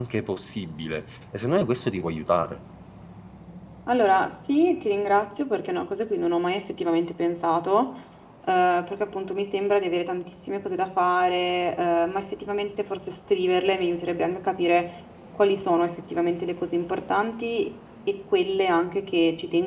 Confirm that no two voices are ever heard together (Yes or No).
Yes